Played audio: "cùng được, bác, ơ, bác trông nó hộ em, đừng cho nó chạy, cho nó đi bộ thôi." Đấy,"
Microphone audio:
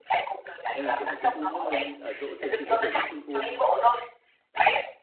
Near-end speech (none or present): present